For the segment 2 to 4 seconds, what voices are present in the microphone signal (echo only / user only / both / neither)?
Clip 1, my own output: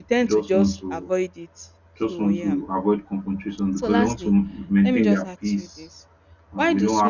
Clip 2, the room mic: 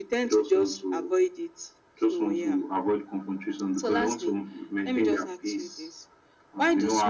echo only